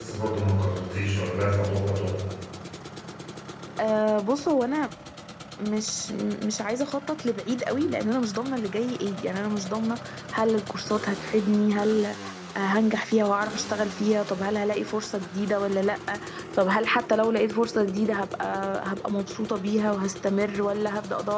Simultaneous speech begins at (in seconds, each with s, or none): none